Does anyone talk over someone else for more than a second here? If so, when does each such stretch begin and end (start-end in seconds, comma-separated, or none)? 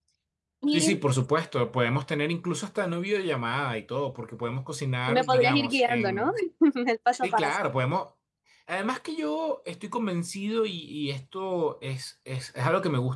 5.1-6.3